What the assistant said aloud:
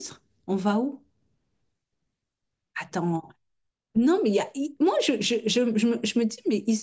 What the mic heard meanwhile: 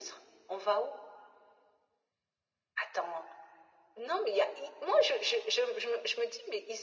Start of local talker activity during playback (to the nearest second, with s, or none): none